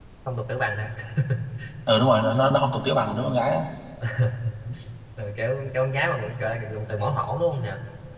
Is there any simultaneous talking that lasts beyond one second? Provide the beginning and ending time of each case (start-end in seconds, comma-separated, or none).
none